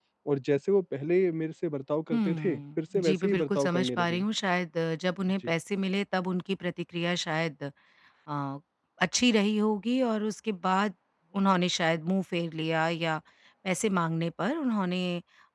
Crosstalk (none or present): present